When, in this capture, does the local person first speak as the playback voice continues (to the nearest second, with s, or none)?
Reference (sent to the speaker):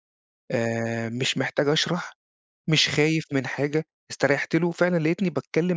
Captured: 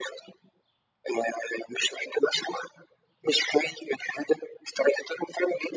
none